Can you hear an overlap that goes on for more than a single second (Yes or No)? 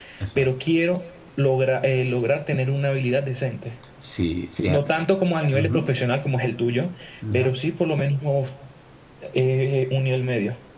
No